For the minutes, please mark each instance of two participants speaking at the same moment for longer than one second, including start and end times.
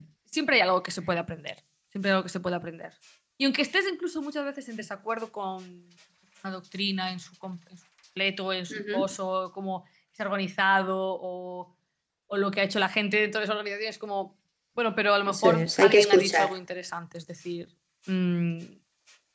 15.3-16.6

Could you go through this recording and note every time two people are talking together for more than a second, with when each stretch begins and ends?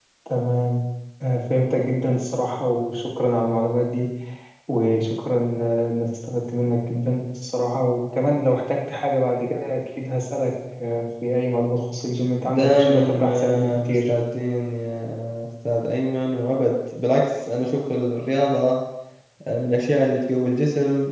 12.5-14.1

